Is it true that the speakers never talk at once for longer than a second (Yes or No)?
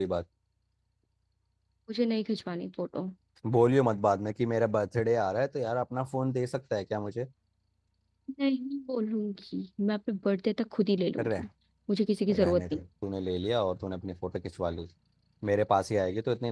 Yes